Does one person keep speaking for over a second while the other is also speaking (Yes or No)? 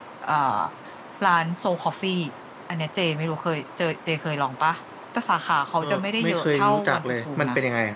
Yes